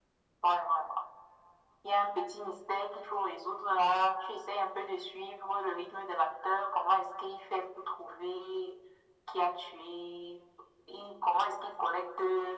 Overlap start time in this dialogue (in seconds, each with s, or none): none